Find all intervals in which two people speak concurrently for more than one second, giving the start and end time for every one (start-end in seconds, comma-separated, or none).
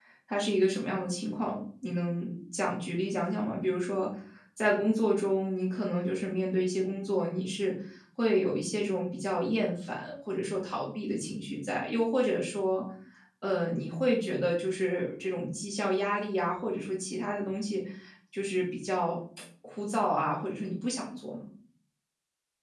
none